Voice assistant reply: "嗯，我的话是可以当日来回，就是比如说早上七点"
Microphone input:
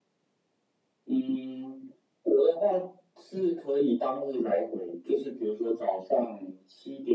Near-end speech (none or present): none